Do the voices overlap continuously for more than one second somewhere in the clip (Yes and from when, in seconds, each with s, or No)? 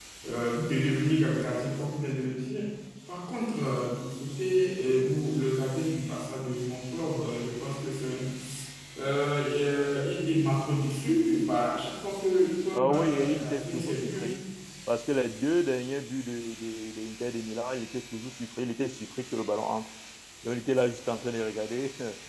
Yes, from 12.7 s